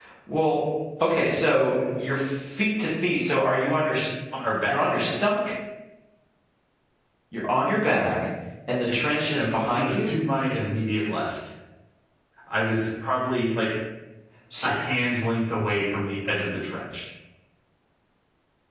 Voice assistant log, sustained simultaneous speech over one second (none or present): present